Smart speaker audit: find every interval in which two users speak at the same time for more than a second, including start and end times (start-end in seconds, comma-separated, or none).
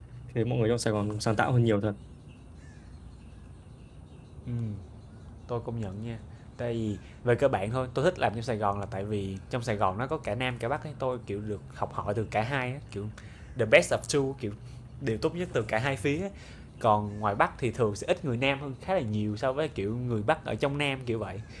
none